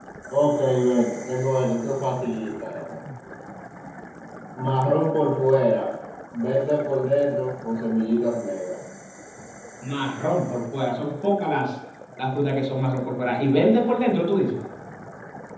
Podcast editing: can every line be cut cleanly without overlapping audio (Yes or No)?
Yes